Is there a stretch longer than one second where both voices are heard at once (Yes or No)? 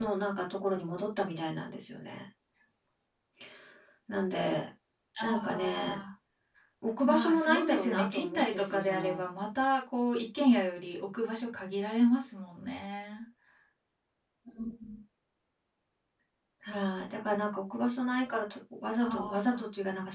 Yes